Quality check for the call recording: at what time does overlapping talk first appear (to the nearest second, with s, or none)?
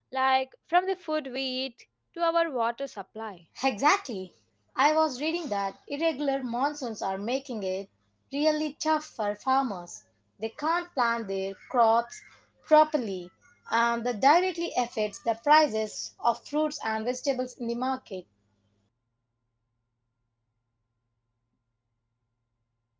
none